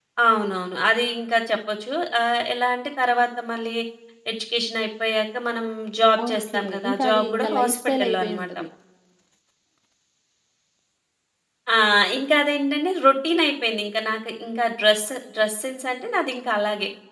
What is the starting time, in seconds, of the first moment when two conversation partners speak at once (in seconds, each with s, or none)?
6.2 s